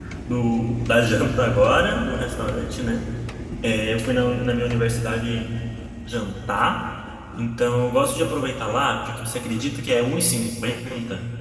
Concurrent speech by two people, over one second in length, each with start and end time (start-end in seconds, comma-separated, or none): none